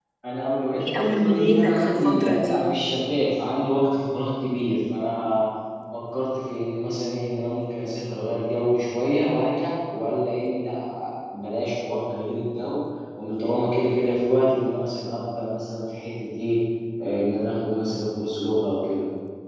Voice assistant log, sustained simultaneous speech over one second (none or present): present